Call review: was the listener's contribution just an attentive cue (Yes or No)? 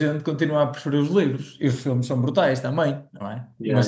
Yes